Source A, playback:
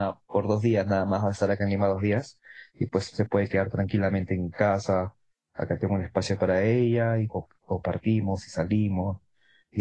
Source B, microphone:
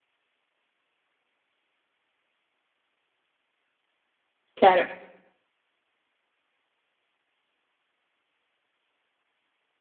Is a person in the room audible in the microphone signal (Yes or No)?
Yes